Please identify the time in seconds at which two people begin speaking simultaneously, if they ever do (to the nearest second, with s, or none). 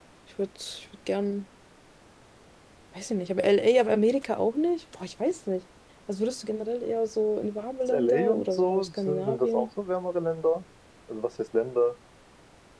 8 s